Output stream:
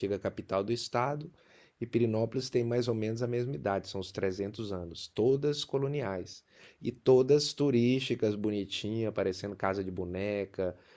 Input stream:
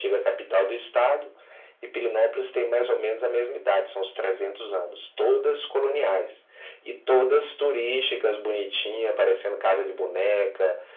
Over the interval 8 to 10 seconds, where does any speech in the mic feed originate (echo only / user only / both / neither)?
echo only